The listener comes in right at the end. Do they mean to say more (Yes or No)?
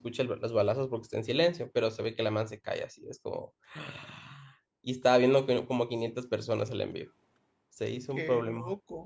Yes